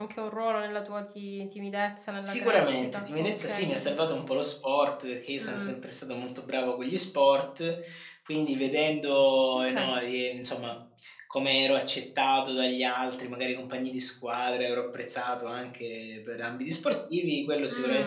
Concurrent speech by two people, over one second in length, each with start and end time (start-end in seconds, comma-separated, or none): 2.2-4.0